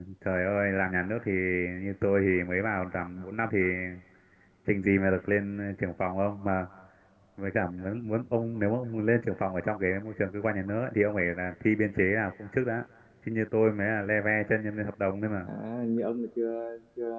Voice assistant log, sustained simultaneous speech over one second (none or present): none